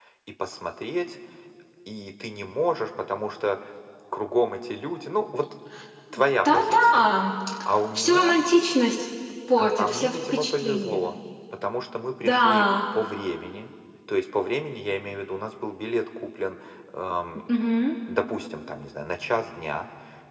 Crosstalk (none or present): present